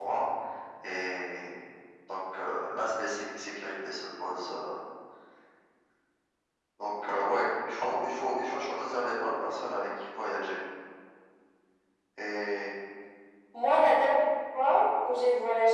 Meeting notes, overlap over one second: none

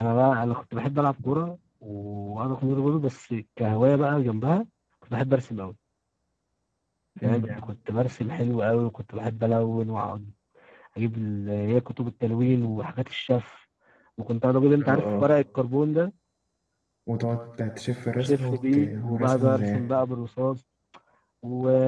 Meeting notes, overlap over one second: present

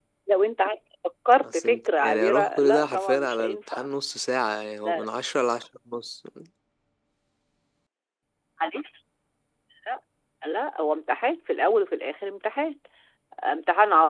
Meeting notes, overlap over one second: present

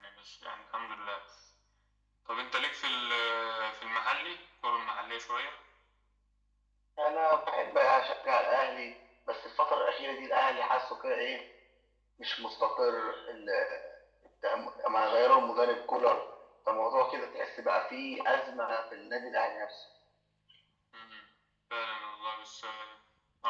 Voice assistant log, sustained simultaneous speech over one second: none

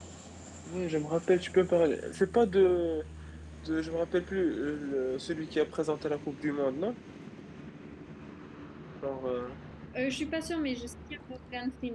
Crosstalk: none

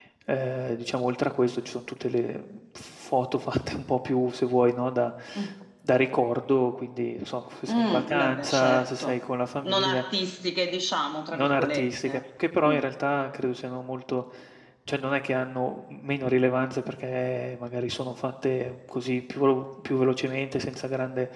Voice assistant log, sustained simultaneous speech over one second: present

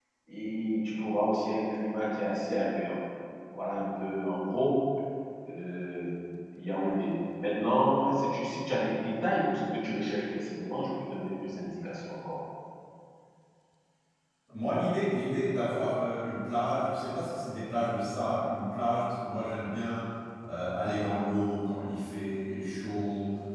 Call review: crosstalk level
none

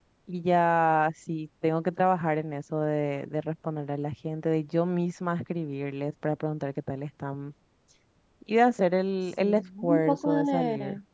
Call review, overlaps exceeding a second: present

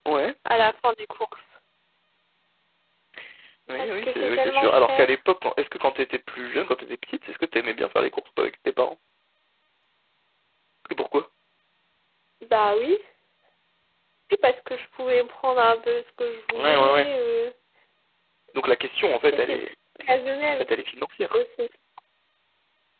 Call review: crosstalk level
present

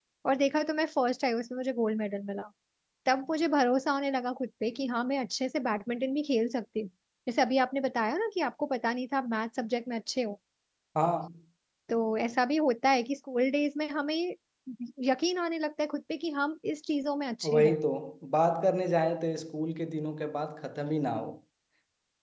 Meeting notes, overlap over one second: none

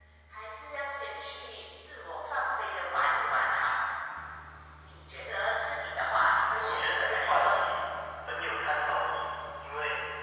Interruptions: present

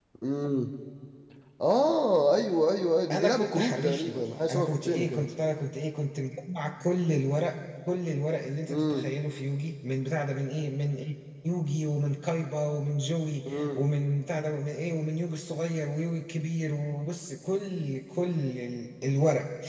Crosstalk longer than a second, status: present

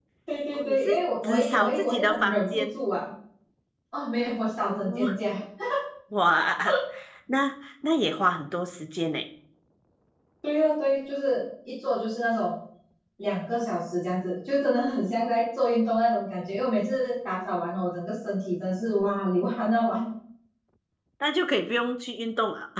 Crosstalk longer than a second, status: present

